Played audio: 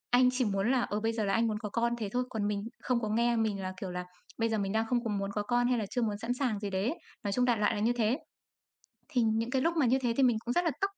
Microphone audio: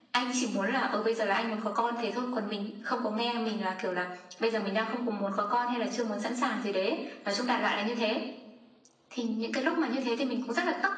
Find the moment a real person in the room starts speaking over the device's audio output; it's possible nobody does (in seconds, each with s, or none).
none